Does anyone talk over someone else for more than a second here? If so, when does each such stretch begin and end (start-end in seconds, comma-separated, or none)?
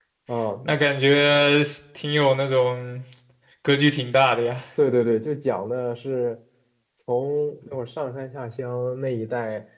none